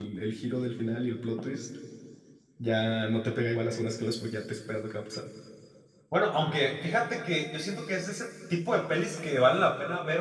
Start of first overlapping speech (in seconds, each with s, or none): none